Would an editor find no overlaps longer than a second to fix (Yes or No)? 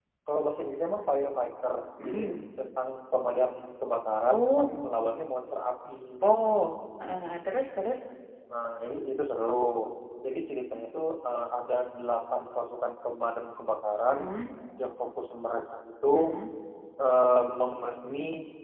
Yes